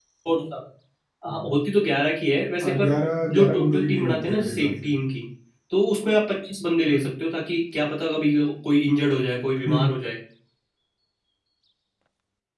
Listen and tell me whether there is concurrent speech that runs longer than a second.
Yes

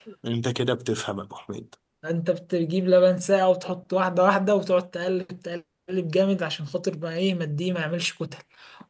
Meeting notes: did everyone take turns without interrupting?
Yes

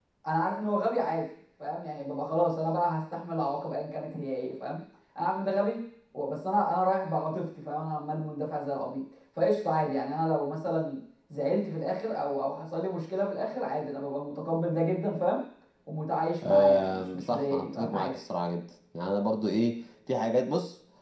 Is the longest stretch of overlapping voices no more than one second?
No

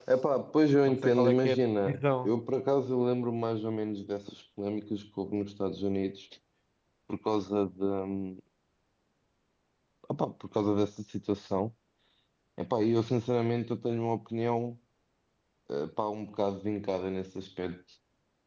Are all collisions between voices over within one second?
No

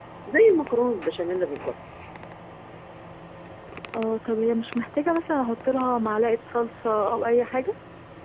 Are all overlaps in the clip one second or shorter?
Yes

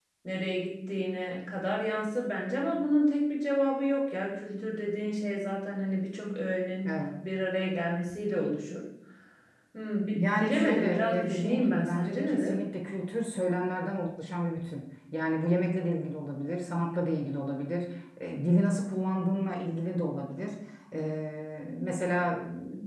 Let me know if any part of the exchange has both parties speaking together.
Yes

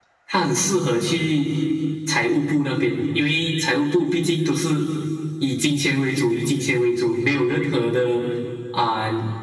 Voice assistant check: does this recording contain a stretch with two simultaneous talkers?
No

